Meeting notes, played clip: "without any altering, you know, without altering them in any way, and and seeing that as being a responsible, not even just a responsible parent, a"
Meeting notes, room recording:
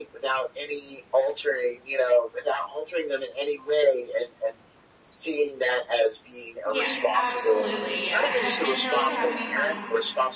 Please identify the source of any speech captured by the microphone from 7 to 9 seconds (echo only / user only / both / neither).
both